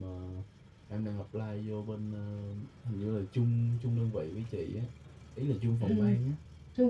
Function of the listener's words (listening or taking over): taking over